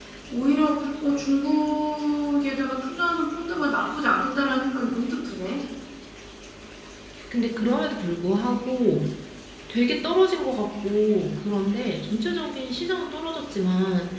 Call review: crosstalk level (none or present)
none